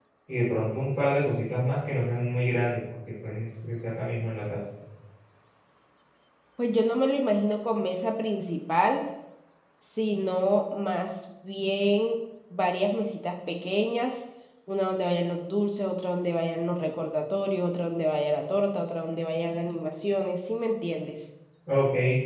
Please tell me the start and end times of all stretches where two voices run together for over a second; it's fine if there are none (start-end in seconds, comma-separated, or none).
none